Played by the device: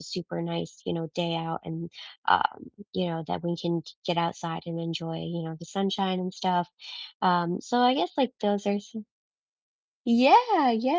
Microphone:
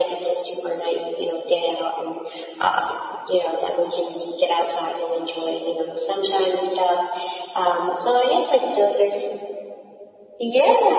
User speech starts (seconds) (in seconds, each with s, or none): none